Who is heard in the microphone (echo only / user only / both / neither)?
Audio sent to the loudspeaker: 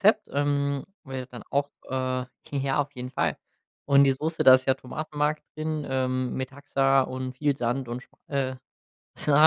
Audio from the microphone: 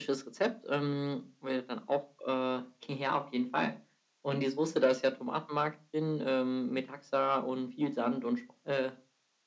echo only